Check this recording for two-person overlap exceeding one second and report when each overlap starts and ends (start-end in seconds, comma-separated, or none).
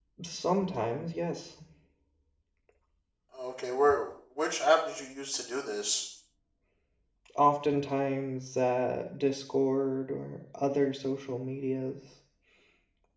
none